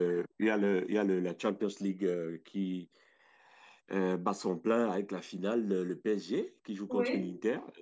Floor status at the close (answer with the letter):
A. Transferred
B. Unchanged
B